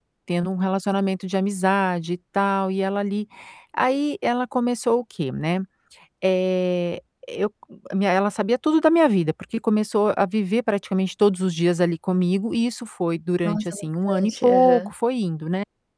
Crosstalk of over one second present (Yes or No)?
Yes